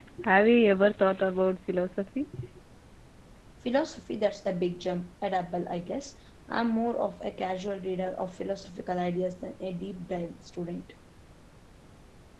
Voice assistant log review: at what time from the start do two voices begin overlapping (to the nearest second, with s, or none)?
none